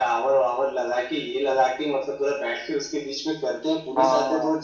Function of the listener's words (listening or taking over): listening